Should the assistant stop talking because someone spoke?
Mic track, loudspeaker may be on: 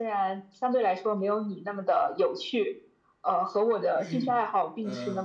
Yes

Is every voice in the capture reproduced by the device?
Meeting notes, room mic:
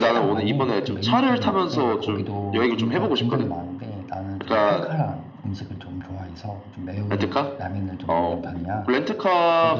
No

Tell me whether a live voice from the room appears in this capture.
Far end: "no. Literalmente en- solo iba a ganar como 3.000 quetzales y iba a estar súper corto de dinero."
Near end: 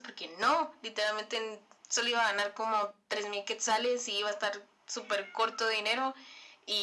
No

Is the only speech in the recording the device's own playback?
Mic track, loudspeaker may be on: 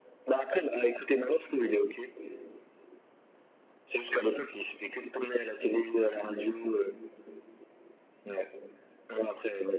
Yes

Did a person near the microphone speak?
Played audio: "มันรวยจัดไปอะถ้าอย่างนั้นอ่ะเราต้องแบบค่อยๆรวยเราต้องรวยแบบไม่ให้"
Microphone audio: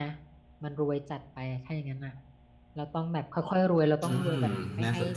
Yes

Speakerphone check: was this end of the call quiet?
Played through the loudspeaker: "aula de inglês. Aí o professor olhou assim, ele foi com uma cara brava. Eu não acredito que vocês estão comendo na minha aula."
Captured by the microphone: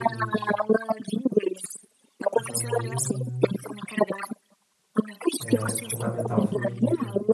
No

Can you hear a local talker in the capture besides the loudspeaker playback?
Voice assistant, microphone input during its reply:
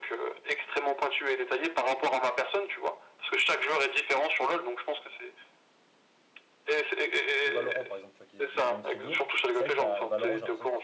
Yes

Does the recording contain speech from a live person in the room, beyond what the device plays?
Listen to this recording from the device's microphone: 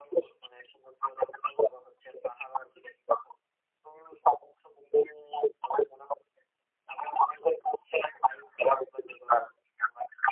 No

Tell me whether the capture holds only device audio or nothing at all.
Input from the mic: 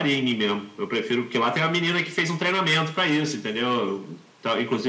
Yes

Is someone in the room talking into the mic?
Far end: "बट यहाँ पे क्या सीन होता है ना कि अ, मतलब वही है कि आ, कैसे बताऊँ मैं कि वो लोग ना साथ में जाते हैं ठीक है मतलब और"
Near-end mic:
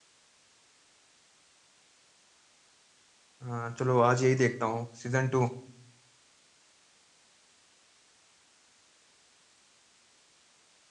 Yes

